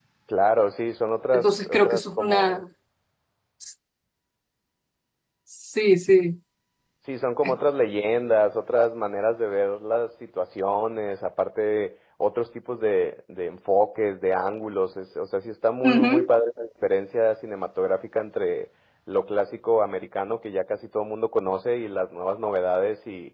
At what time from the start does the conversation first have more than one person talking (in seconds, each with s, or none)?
1.3 s